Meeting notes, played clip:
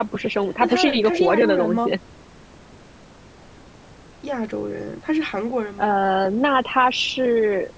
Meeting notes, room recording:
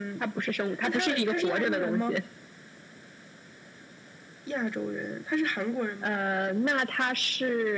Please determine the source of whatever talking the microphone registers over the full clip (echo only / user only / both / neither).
echo only